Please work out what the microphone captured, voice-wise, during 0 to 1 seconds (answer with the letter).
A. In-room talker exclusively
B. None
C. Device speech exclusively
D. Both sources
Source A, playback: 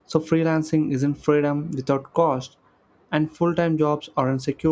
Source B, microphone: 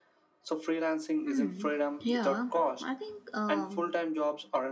C